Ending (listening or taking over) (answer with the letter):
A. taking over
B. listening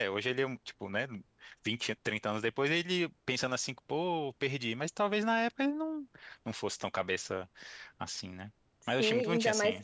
A